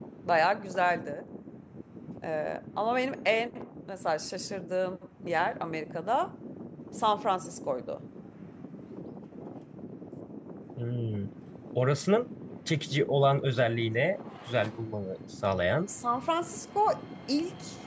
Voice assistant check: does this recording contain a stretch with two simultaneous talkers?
No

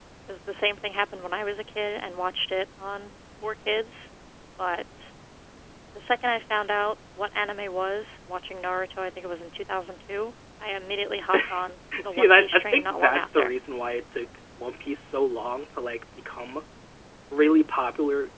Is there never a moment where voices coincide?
No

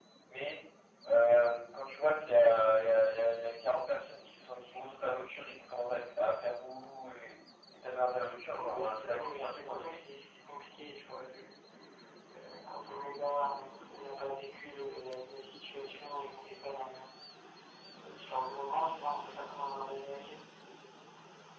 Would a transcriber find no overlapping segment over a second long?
No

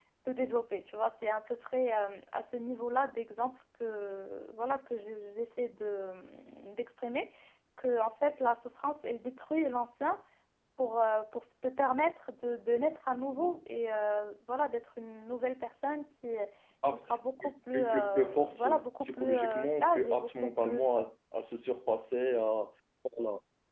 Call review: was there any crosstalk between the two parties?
Yes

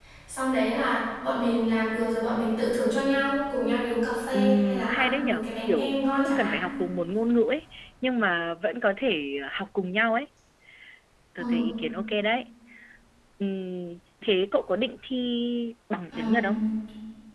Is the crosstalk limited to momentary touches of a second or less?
No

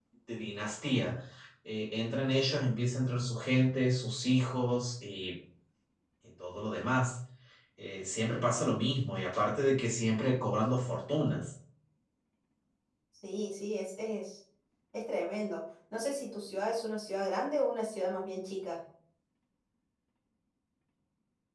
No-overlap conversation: Yes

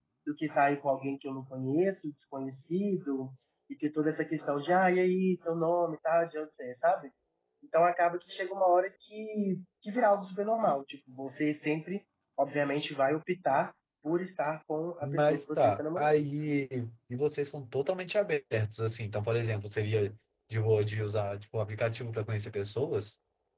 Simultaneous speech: Yes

